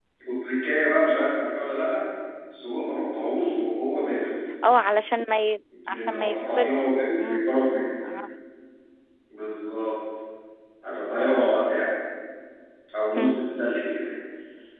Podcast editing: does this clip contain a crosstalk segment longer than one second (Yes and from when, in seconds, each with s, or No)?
Yes, from 5.9 s